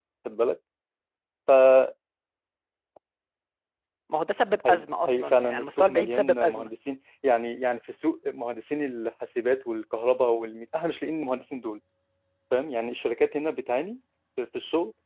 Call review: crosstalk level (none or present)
present